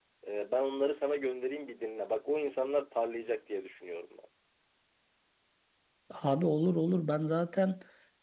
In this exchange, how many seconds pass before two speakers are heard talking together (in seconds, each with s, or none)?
none